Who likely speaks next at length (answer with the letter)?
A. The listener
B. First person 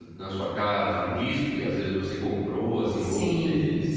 A